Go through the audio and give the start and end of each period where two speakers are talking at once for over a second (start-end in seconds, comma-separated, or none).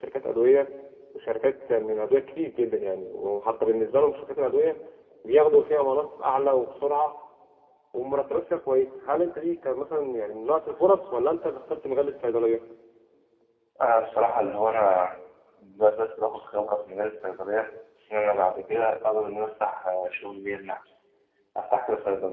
none